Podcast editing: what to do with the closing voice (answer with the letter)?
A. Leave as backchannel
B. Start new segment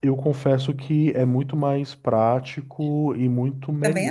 A